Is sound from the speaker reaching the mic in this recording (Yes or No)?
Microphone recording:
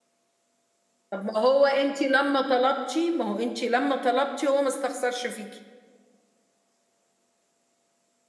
No